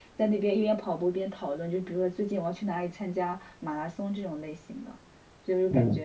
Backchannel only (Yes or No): Yes